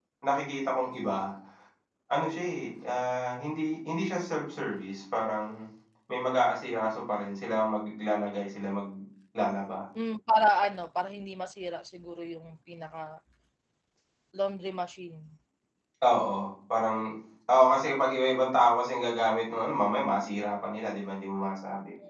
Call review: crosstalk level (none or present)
none